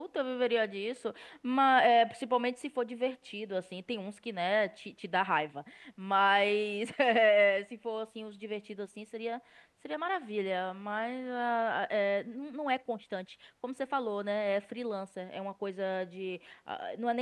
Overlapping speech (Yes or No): No